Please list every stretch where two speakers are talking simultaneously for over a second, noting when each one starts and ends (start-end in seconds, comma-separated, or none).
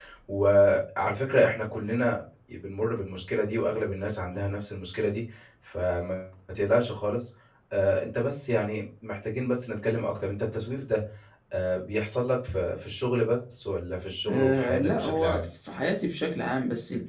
14.3-15.5